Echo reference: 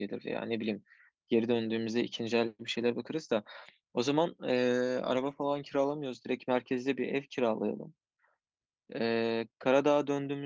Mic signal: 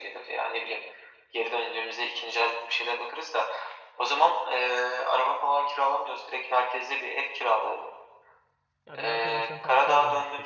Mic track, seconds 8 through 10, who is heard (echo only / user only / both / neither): both